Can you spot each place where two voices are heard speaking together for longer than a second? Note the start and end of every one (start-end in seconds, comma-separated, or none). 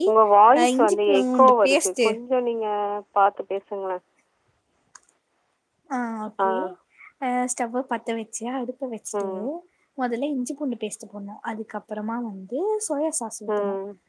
0.6-2.1